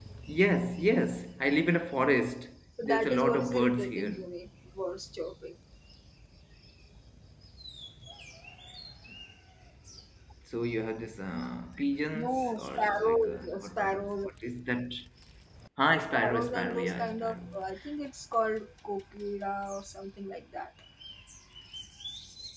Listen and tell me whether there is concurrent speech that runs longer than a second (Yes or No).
Yes